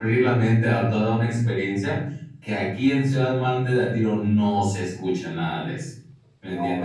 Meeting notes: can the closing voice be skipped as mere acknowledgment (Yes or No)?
No